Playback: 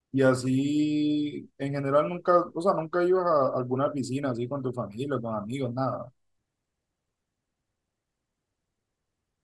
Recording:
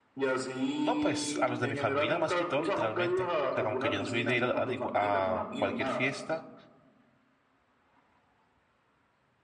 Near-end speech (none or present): present